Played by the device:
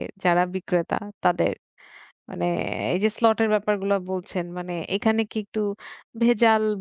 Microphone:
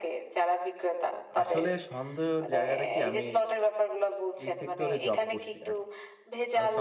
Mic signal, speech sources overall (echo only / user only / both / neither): both